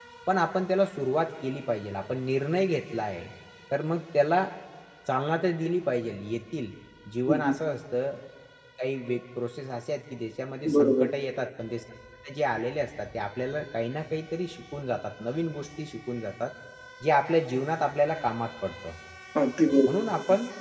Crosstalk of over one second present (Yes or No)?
No